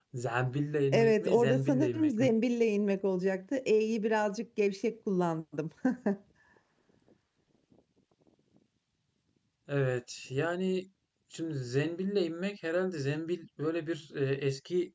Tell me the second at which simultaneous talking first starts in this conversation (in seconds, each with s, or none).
0.9 s